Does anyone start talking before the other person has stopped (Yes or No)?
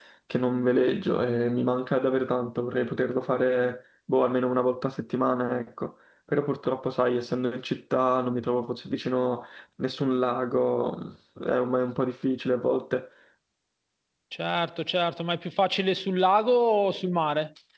No